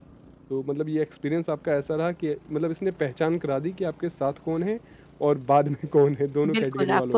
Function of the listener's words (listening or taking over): taking over